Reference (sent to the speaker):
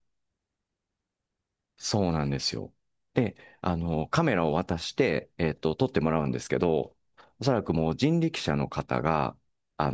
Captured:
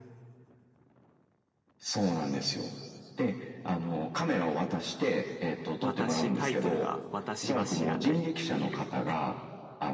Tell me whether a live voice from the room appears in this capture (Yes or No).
Yes